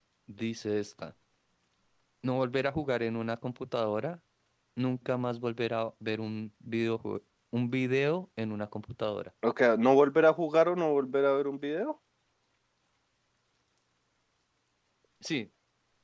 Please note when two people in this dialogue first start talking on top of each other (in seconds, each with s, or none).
none